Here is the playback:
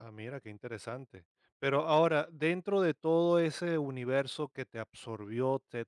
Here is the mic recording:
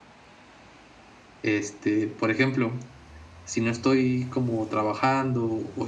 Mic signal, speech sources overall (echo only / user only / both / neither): user only